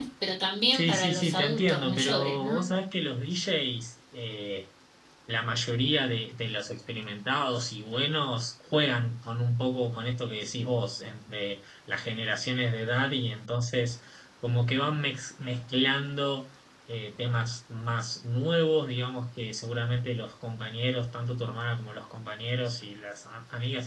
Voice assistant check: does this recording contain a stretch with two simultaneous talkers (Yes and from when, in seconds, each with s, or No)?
Yes, from 0.7 s